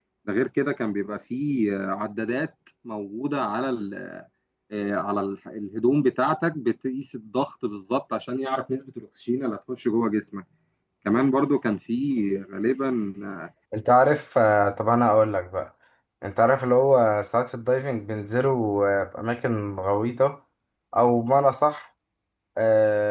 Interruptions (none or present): none